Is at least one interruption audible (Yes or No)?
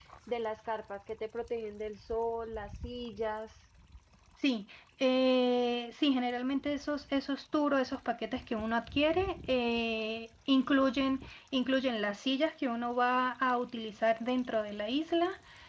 No